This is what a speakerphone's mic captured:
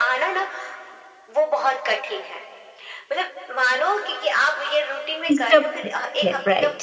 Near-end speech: present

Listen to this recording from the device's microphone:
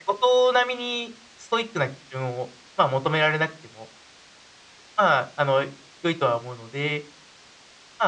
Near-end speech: none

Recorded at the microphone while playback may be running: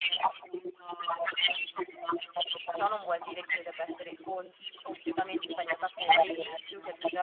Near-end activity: present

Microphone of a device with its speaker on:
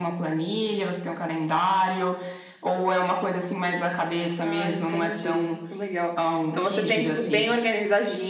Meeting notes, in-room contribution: present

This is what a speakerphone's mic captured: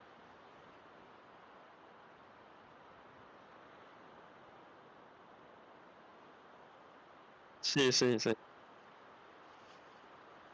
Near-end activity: present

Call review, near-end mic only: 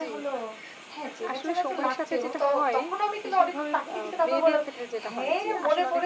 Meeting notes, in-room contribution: present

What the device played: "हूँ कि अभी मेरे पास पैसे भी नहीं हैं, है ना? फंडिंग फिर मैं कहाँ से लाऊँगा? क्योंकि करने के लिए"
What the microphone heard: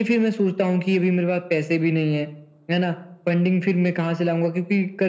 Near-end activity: none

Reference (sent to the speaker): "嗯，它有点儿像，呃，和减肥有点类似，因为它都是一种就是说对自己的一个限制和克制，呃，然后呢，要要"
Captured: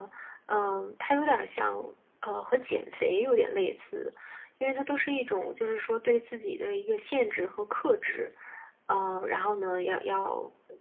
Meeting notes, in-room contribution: none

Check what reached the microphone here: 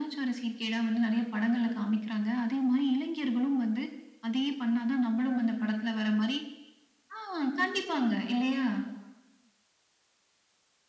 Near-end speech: none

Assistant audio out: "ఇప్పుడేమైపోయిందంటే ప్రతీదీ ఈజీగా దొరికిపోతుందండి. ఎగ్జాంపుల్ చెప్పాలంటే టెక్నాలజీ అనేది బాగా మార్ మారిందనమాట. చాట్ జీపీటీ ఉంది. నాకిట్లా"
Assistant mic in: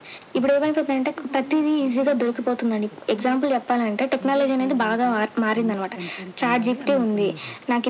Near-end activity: present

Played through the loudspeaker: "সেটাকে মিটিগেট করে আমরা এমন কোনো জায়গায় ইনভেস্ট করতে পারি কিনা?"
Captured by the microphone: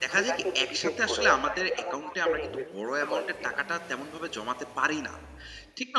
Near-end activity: present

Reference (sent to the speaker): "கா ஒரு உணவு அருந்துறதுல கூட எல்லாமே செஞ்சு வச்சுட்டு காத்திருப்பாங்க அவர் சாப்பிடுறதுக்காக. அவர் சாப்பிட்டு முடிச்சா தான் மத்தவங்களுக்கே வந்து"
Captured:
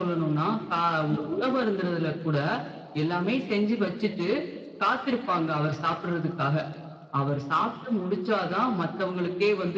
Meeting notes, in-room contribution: none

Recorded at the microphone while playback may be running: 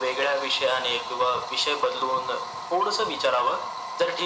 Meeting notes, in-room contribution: none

